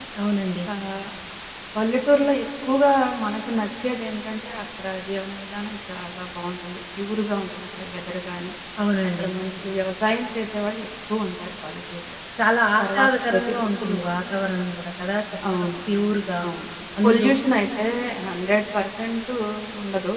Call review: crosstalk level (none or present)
present